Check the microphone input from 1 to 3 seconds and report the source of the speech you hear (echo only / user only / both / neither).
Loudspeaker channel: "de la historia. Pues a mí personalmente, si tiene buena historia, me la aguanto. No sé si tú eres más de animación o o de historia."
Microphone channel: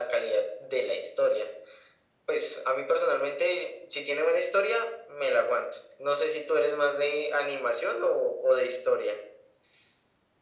echo only